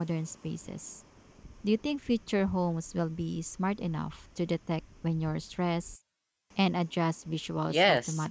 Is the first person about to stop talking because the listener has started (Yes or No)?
Yes